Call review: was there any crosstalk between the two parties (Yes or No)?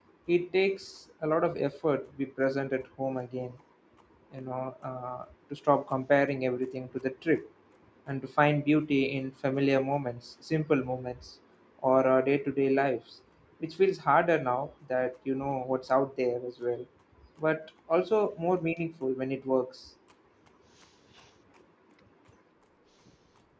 No